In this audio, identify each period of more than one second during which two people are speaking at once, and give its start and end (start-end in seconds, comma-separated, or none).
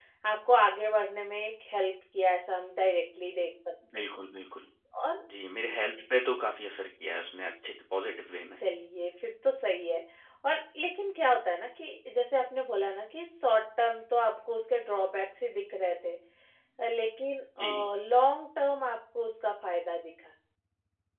none